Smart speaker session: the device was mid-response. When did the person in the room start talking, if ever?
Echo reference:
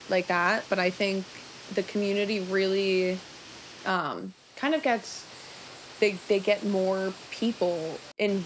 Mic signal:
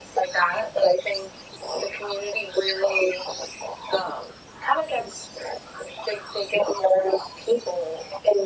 none

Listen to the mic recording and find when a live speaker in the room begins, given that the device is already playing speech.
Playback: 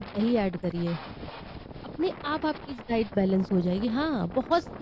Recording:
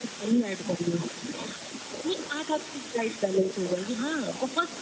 none

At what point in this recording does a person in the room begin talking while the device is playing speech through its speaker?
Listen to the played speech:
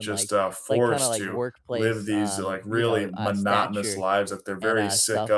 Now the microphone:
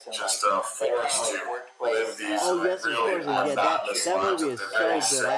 2.4 s

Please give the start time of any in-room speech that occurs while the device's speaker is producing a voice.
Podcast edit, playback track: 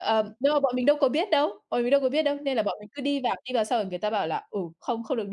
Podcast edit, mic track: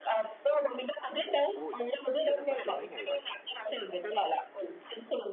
1.5 s

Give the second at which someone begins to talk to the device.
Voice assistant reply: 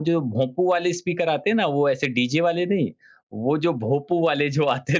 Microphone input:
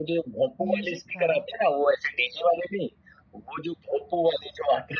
0.6 s

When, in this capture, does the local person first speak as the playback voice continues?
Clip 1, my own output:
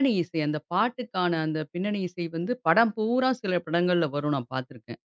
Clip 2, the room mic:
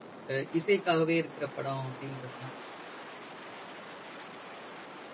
0.3 s

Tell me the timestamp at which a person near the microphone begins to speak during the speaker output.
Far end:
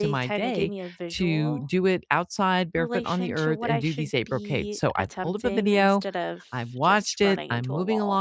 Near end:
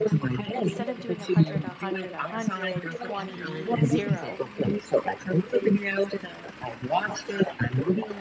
0.5 s

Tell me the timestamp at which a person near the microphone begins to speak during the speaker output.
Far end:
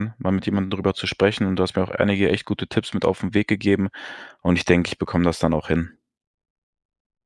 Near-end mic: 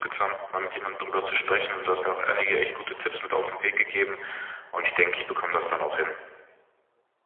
none

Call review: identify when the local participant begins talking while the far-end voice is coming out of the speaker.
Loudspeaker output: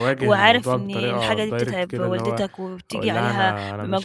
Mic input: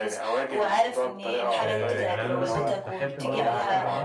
1.6 s

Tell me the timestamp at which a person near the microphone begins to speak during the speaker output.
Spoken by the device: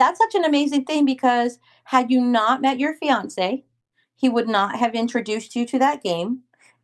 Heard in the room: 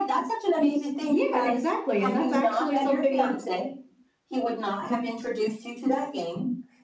1.1 s

